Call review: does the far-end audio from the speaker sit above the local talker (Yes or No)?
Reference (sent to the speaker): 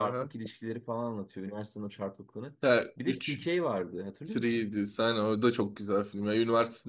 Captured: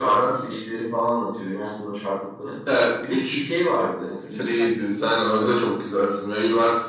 Yes